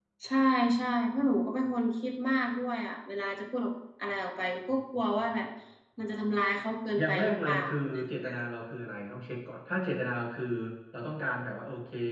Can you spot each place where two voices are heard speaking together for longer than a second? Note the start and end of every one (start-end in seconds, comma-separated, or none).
7.0-8.3